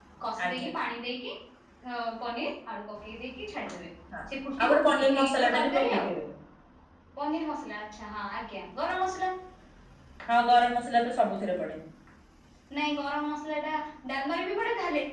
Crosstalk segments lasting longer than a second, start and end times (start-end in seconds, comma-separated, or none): 4.6-6.1